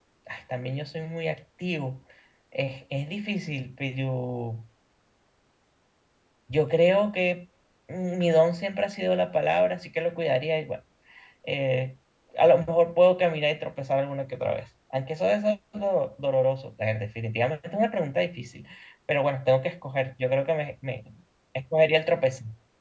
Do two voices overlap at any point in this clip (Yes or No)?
No